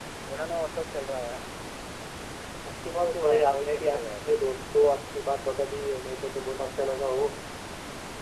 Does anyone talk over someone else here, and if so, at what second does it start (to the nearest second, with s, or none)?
3 s